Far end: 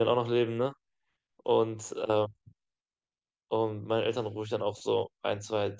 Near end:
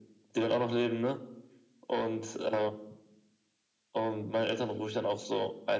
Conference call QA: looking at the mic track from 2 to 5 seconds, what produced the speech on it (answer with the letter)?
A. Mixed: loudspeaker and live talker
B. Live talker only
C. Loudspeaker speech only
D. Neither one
C